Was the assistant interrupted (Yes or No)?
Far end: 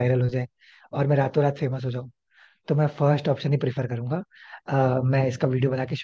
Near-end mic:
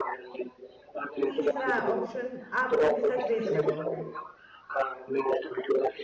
Yes